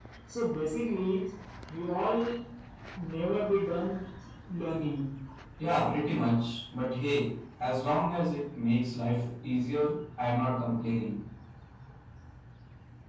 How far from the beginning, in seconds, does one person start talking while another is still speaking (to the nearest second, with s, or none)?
none